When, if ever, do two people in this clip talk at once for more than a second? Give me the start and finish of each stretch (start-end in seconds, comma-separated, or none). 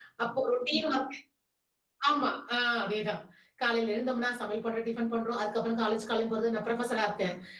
none